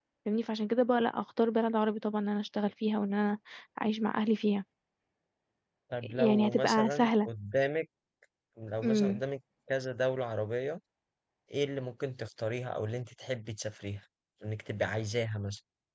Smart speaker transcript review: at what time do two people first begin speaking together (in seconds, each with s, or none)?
6.0 s